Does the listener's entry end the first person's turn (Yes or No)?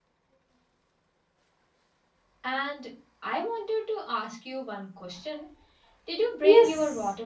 Yes